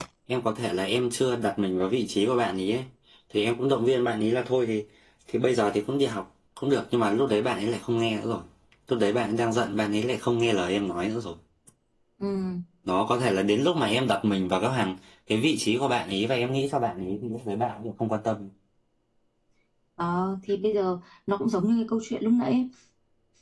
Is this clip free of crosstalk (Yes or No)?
Yes